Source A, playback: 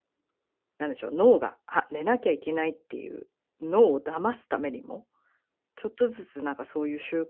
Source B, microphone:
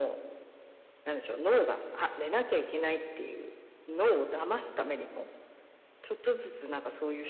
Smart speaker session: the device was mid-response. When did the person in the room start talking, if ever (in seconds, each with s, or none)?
none